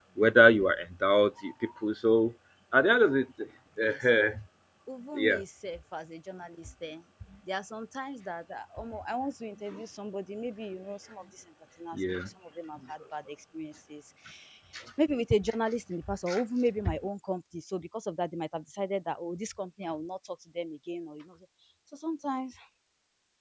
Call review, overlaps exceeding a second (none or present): none